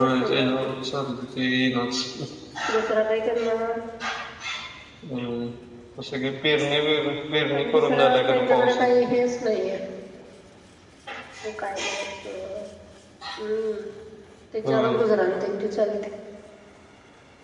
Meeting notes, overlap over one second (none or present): present